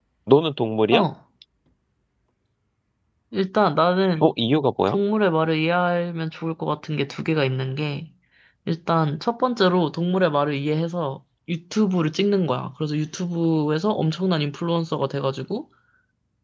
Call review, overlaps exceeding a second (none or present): none